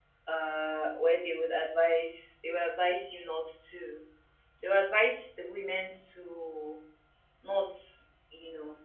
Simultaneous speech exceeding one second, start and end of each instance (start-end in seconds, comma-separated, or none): none